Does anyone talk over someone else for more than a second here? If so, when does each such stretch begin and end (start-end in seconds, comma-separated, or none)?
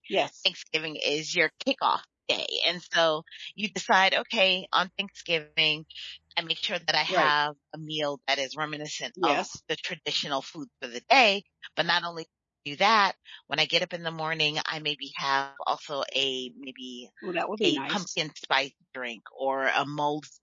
none